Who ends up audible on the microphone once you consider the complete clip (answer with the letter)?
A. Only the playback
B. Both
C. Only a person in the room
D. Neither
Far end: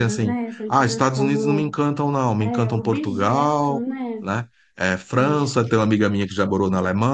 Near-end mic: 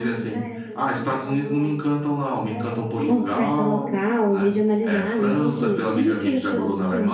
B